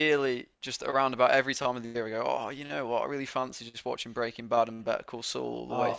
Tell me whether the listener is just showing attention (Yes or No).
No